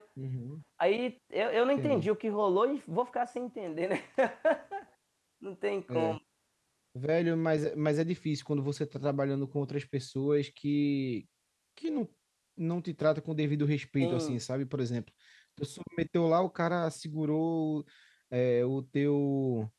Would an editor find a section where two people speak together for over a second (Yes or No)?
No